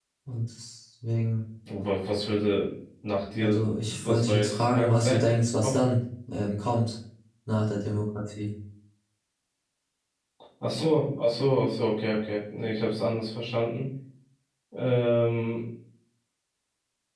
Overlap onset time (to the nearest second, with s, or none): 3 s